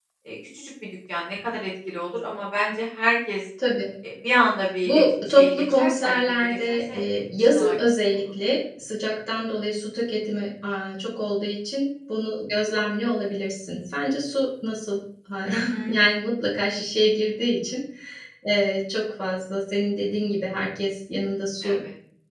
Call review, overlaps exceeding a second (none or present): present